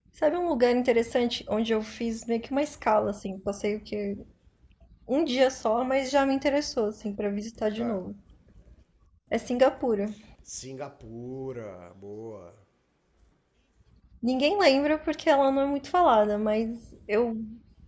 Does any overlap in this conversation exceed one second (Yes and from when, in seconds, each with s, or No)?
No